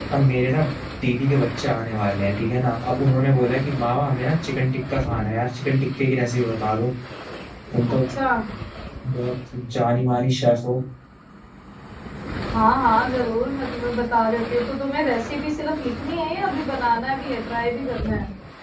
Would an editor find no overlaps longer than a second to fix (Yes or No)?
Yes